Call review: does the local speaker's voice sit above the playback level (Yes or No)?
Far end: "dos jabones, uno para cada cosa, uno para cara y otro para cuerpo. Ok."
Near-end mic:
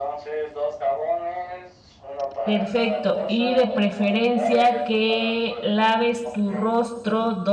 Yes